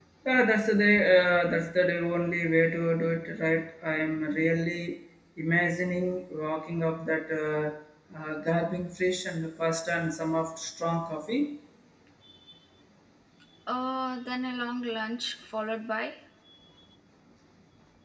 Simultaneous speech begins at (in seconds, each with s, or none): none